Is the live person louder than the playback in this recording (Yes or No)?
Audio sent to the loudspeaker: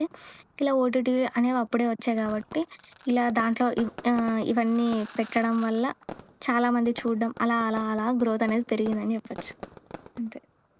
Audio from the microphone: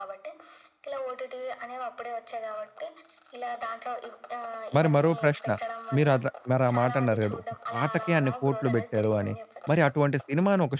Yes